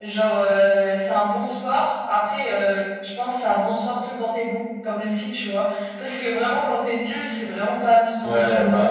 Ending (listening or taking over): taking over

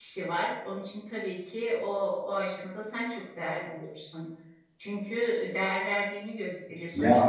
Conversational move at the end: taking over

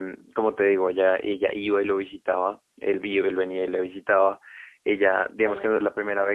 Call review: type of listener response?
listening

